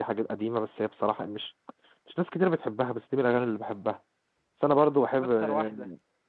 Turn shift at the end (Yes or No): No